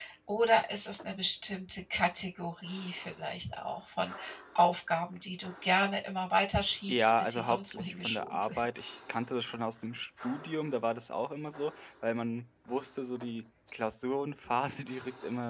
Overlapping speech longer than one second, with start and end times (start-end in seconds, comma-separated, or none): 6.9-8.7